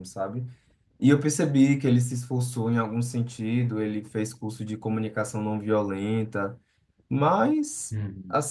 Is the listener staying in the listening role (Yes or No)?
Yes